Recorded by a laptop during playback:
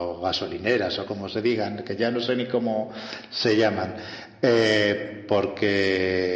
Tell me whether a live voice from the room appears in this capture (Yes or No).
No